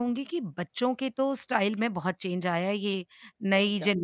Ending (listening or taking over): listening